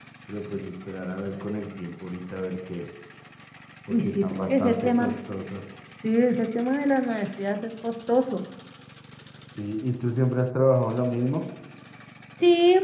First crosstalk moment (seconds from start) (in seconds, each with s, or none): 3.9 s